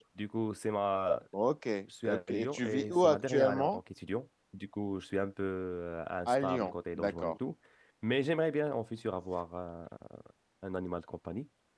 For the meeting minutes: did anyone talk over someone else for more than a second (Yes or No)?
Yes